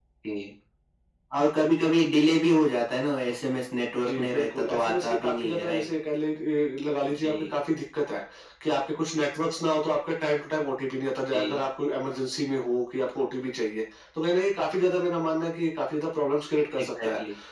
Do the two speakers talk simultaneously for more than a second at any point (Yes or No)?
Yes